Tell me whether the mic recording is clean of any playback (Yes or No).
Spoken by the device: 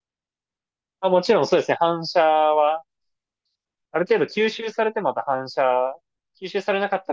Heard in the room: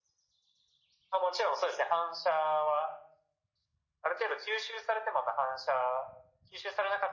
No